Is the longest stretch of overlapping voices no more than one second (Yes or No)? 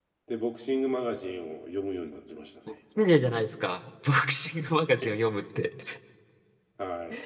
Yes